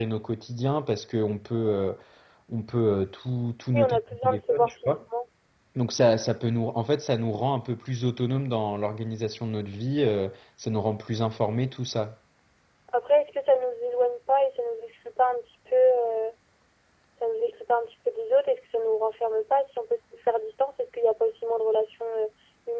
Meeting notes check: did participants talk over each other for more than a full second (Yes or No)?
Yes